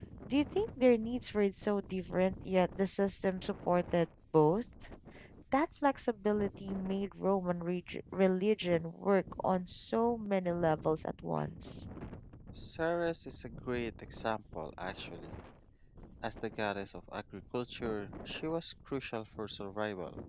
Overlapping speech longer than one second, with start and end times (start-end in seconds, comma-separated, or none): none